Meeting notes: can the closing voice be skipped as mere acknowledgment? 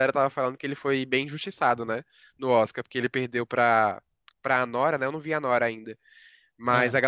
Yes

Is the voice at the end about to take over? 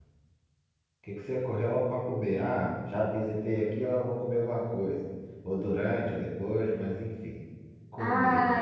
Yes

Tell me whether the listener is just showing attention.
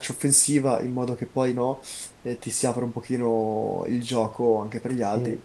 Yes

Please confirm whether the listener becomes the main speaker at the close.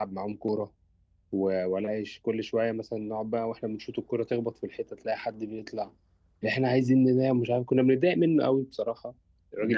Yes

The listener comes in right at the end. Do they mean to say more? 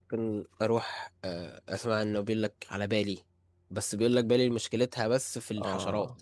Yes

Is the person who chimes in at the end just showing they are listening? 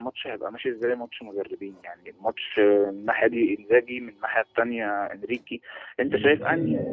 Yes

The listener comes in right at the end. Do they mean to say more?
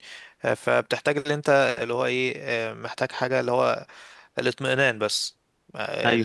No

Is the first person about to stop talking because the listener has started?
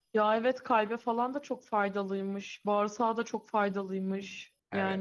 Yes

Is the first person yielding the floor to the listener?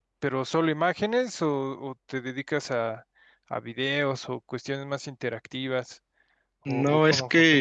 Yes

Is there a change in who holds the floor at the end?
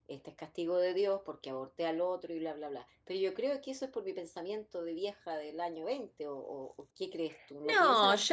Yes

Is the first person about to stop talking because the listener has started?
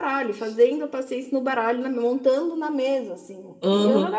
Yes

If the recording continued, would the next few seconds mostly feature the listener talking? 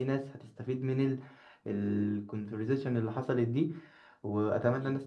No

